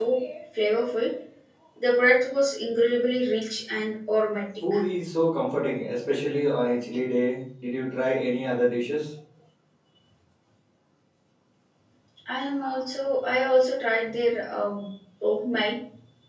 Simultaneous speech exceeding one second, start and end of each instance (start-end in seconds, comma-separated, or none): none